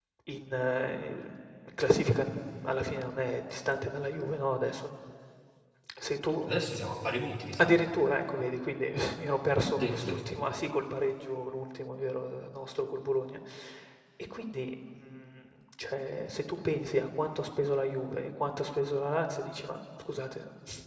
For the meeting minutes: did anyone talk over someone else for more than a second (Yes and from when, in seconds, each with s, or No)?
No